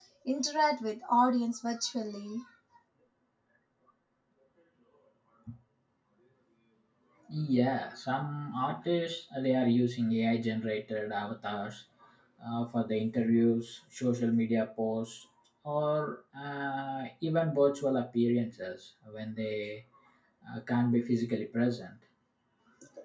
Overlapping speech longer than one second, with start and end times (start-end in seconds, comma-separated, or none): none